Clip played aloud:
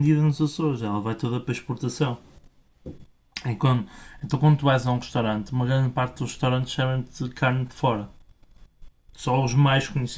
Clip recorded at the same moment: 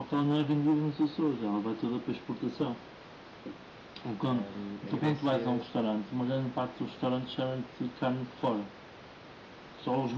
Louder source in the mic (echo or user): echo